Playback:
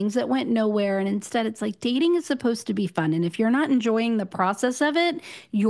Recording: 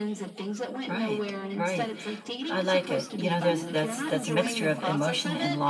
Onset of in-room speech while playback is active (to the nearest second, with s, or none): 1 s